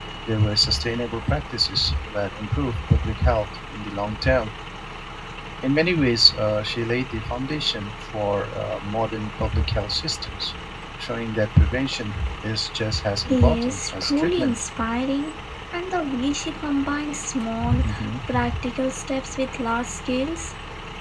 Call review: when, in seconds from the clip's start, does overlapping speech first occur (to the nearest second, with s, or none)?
13 s